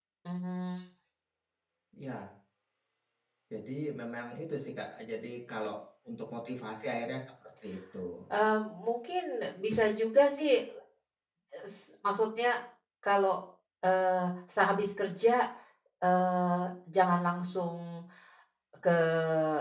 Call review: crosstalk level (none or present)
none